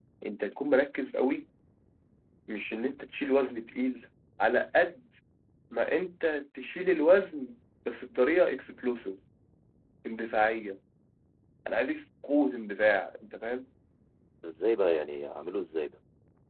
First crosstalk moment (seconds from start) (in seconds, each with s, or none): none